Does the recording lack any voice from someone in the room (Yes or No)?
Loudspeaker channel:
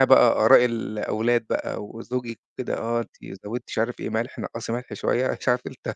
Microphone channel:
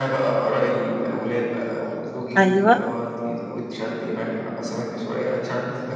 No